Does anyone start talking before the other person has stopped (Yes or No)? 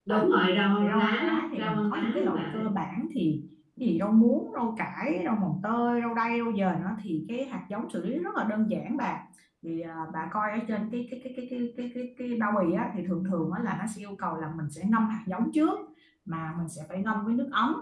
Yes